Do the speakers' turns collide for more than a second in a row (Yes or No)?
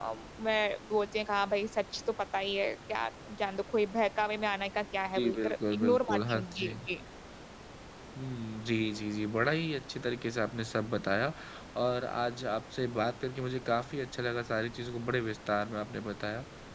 Yes